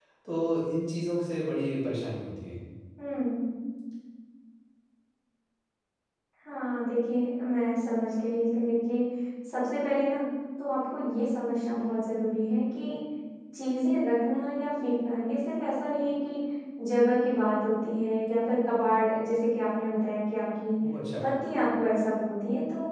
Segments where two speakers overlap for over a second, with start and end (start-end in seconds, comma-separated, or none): none